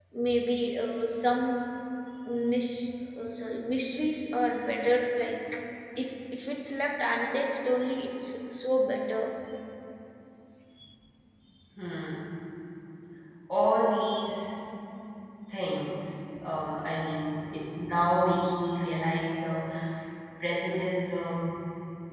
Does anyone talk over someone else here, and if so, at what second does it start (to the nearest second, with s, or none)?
none